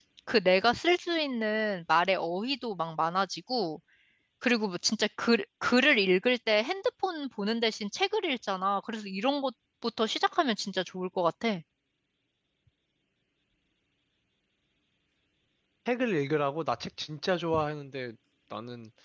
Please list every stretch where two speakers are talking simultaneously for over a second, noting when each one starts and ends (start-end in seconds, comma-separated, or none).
none